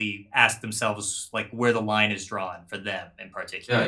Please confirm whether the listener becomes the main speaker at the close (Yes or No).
Yes